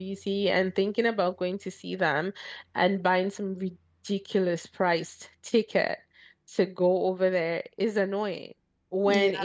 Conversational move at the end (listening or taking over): listening